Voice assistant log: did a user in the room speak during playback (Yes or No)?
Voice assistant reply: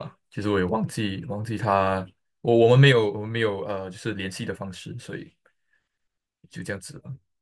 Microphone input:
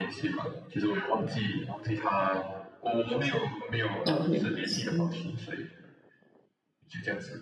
Yes